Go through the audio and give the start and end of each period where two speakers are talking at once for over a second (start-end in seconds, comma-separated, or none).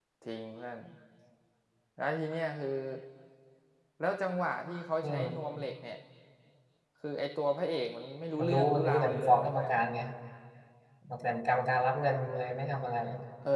8.4-9.7